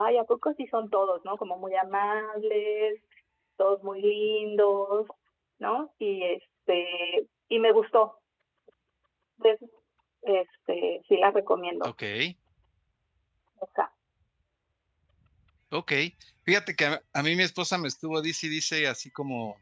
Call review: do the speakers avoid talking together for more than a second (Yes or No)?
Yes